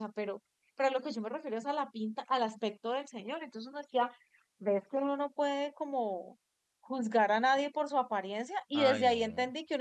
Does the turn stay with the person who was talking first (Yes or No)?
Yes